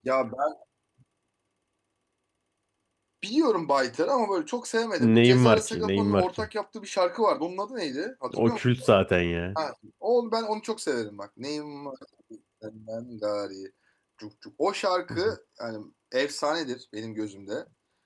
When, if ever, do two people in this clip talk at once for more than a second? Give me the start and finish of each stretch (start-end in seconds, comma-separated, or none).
5.0-6.5